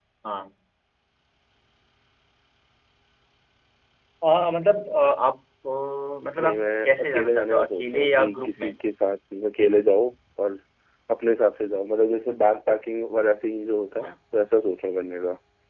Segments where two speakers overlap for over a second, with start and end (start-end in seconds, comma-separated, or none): 6.4-8.7